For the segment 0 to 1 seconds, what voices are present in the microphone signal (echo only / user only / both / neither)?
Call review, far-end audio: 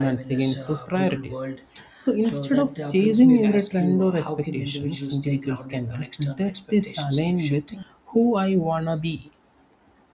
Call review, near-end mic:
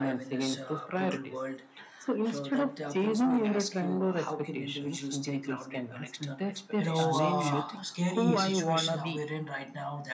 echo only